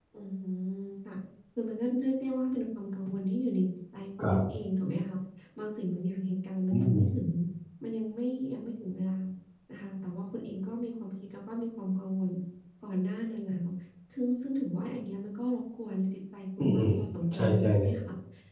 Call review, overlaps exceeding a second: present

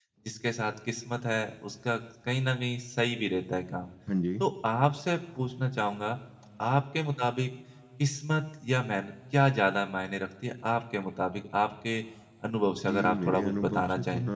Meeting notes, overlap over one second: present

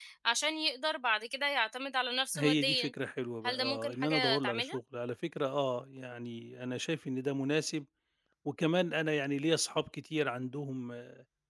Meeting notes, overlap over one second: present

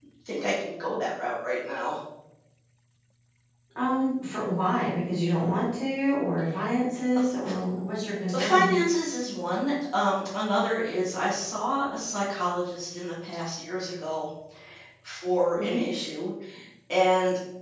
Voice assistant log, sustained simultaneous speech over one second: none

